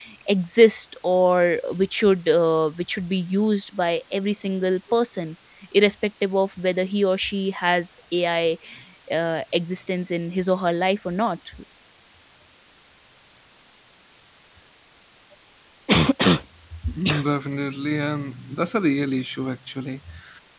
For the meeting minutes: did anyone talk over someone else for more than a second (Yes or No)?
No